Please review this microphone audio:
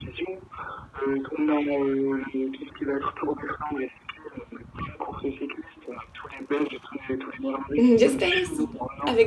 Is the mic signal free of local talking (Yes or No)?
No